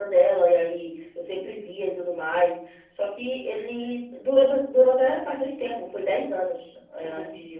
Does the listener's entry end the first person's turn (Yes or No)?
No